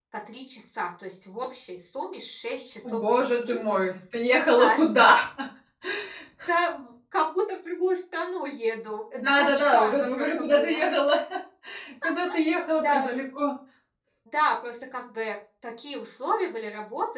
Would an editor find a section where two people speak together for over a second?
Yes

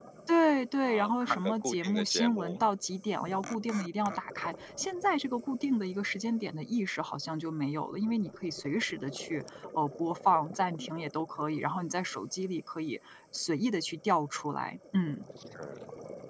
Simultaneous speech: Yes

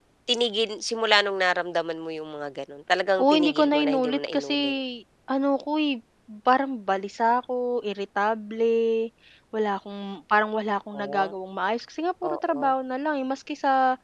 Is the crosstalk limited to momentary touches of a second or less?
No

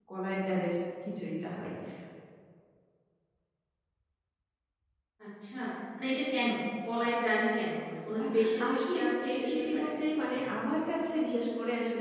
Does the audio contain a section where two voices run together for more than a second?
Yes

